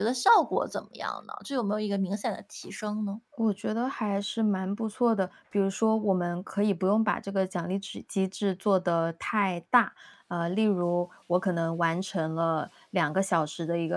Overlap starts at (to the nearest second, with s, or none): none